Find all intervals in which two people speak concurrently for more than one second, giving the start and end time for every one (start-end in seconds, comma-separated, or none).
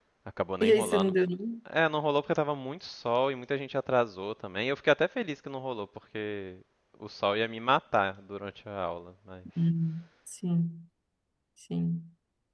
none